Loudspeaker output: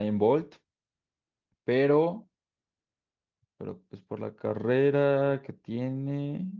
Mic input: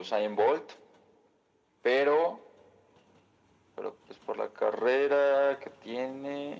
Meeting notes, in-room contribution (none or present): none